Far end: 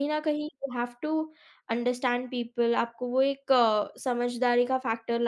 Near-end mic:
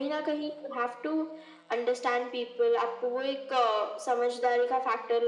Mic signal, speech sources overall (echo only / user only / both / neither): echo only